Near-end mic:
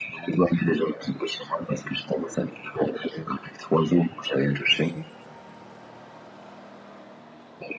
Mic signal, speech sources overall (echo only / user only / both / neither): echo only